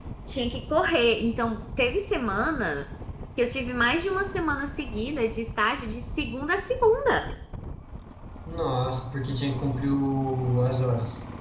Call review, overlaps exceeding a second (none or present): none